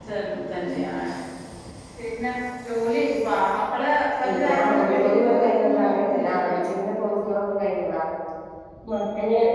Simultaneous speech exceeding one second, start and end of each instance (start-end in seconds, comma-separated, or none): 4.5-6.6